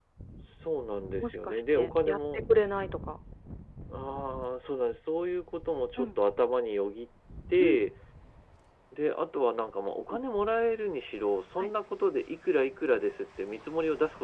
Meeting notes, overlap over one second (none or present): present